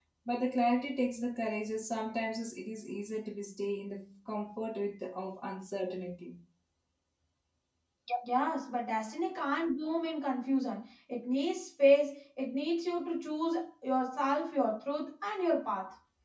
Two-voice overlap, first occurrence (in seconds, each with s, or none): none